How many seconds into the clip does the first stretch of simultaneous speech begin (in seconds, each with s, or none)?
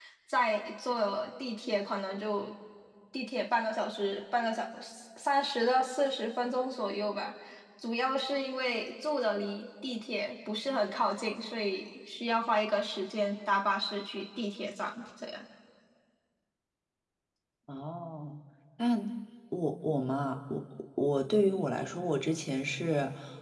none